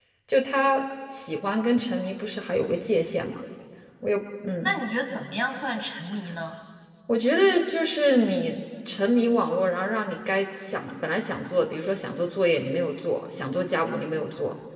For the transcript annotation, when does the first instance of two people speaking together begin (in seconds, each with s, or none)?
none